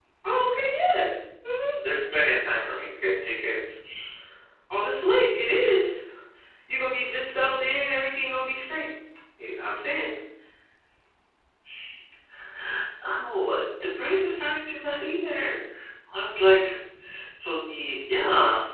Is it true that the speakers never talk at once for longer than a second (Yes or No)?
Yes